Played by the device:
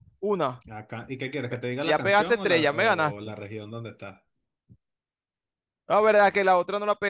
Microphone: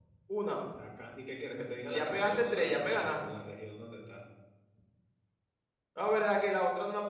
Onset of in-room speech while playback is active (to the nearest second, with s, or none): none